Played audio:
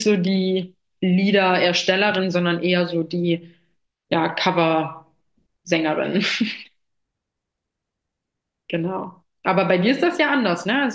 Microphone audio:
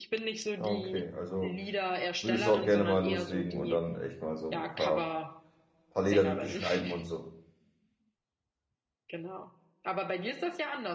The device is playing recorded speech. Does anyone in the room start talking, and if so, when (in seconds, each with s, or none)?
0.6 s